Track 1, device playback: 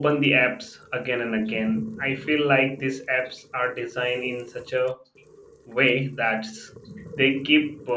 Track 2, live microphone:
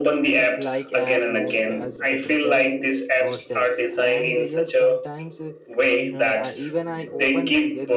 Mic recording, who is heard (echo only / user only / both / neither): both